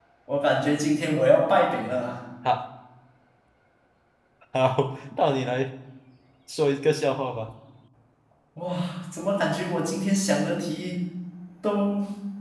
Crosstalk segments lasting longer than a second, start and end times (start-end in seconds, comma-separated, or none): none